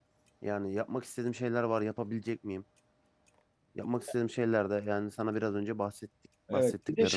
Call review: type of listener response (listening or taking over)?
taking over